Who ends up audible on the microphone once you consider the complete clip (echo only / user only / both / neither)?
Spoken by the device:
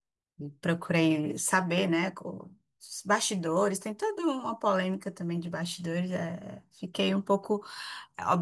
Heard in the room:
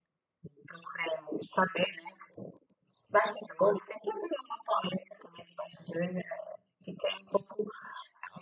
echo only